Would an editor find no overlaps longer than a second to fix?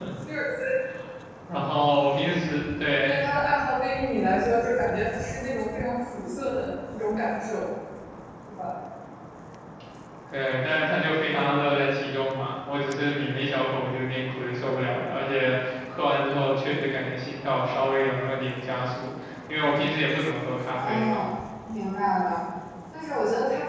Yes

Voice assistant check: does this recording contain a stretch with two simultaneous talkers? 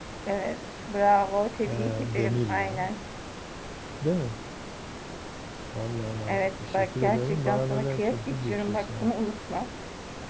Yes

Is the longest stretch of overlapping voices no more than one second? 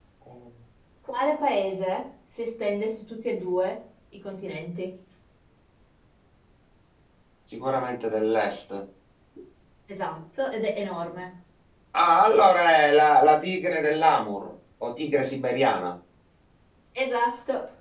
Yes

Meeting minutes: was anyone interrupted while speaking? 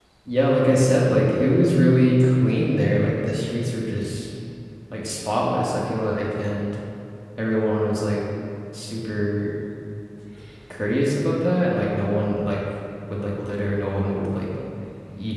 No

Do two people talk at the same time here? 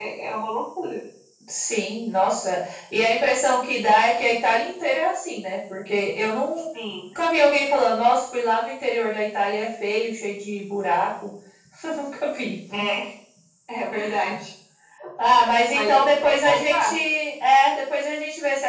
Yes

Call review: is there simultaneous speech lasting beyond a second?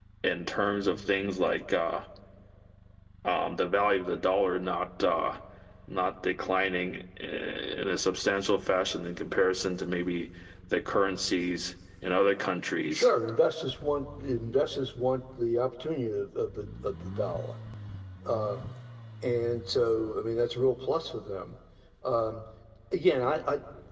No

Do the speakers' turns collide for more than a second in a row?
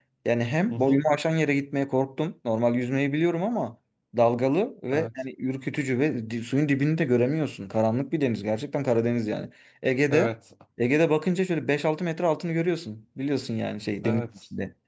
No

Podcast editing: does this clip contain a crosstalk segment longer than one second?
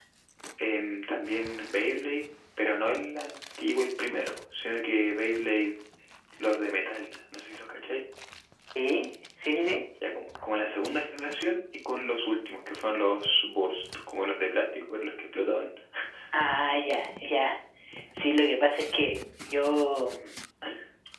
No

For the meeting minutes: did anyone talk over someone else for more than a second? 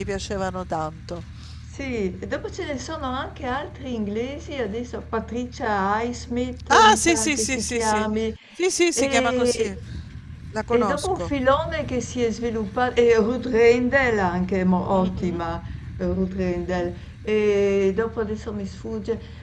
Yes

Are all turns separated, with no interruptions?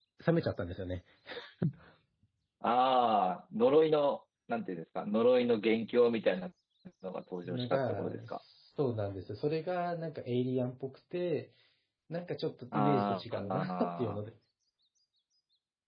No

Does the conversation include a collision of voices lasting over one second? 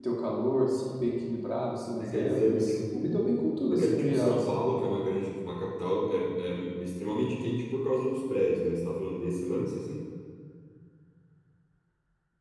Yes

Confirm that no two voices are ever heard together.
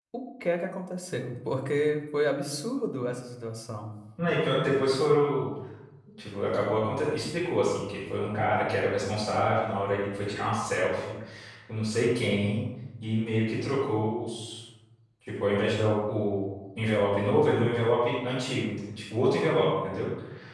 Yes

